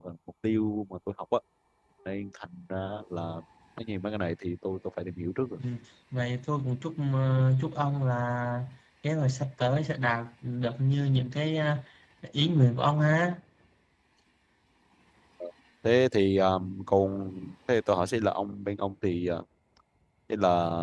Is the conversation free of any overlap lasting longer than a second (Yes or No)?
Yes